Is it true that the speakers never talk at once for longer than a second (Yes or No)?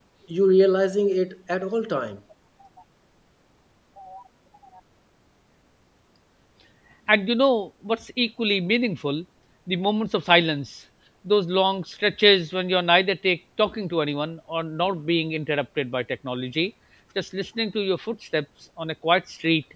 Yes